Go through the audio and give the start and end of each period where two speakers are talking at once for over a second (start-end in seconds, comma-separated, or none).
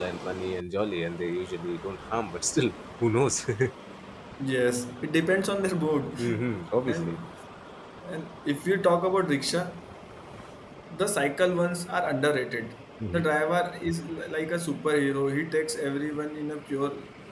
none